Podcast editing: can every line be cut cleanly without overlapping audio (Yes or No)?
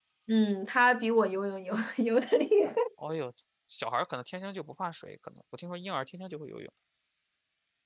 Yes